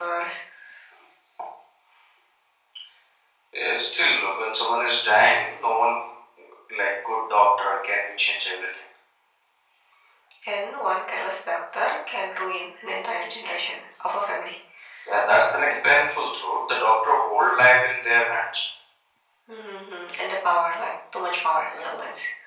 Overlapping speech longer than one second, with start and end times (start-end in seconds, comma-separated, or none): none